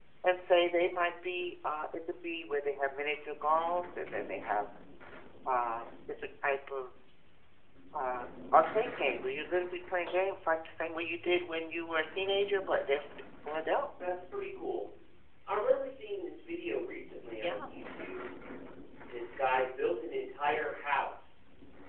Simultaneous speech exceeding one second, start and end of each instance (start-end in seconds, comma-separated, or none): none